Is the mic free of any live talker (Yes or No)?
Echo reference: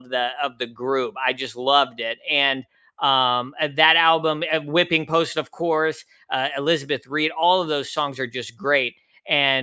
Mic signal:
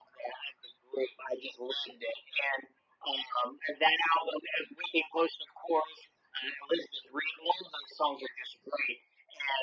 Yes